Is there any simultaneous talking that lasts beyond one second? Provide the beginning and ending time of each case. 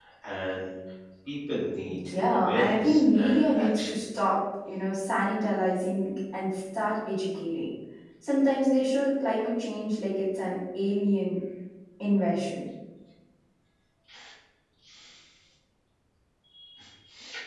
2.1-4.0

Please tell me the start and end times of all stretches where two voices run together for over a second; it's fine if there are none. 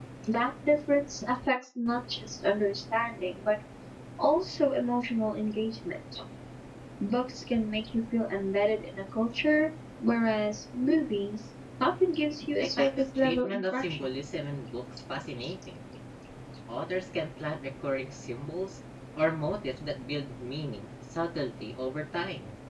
12.6-14.1

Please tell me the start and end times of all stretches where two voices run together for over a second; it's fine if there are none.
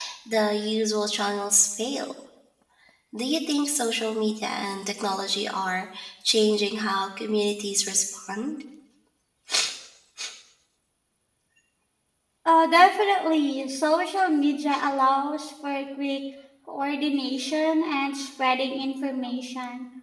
none

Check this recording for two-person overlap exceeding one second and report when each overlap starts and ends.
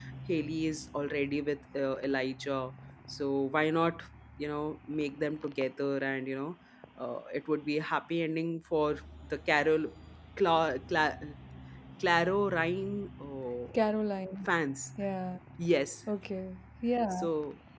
none

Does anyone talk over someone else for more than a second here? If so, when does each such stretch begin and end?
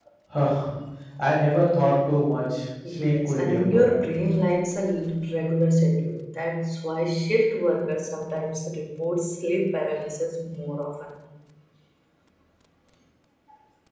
2.9-4.1

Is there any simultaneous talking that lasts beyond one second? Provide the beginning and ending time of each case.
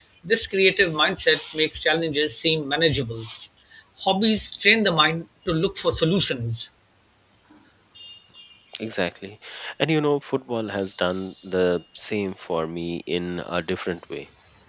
none

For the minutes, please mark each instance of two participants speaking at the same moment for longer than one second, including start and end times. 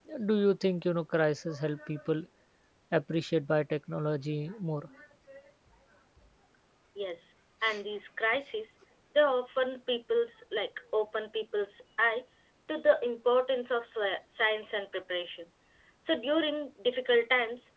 none

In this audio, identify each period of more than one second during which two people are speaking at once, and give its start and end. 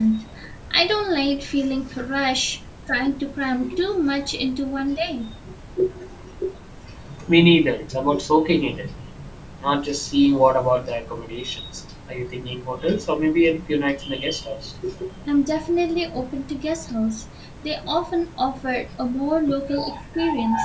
none

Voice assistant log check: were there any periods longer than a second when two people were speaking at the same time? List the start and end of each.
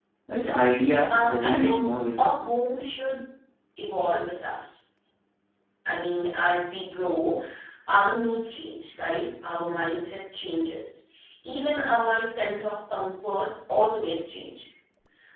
1.1-2.4

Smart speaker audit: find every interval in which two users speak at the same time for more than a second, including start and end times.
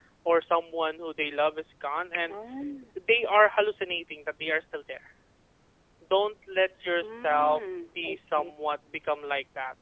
7.0-8.5

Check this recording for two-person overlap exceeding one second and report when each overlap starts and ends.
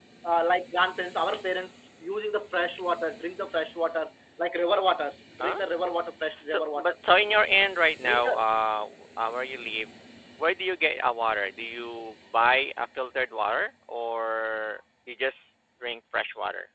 none

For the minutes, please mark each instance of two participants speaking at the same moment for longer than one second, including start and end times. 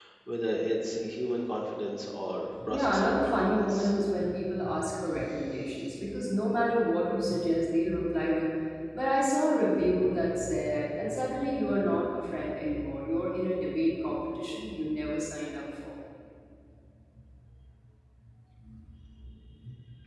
2.6-3.9

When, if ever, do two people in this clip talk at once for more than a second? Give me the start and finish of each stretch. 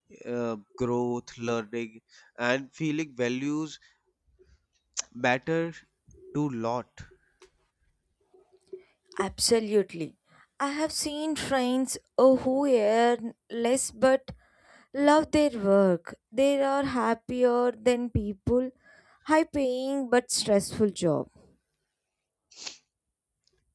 none

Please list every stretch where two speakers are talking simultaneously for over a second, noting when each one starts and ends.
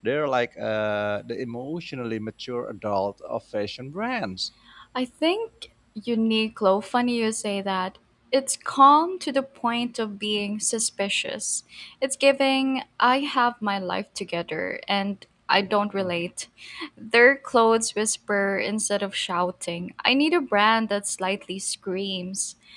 none

